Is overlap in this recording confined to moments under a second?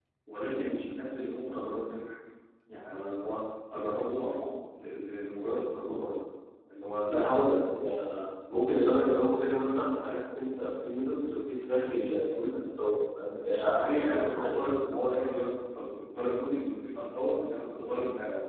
No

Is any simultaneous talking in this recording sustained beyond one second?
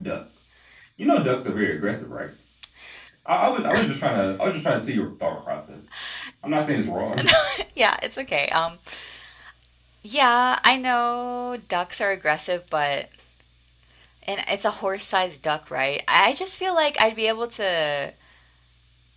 No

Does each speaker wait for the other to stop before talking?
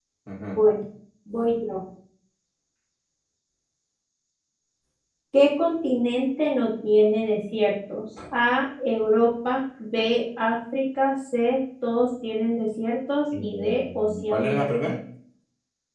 No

